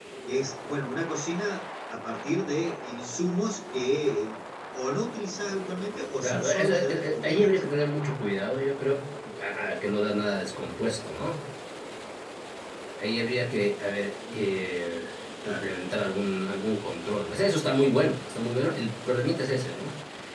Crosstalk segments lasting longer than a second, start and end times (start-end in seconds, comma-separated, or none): 6.2-7.6